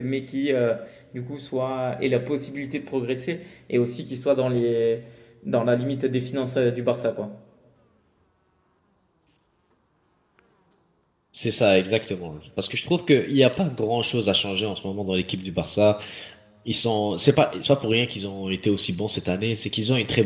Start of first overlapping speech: none

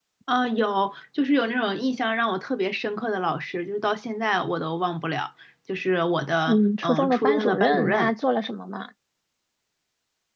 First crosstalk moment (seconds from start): 6 s

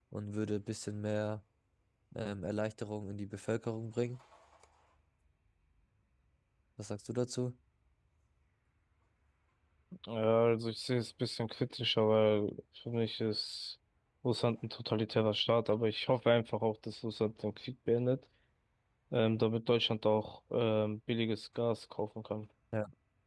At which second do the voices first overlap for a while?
none

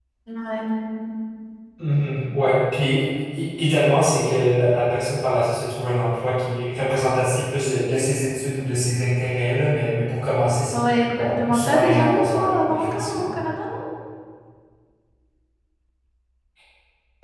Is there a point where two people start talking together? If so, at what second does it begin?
11 s

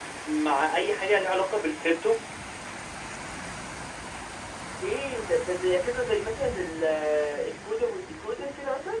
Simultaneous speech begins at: none

